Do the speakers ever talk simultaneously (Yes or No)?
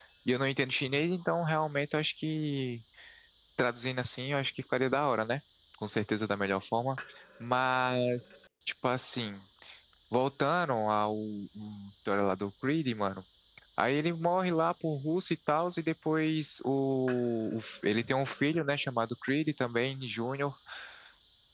No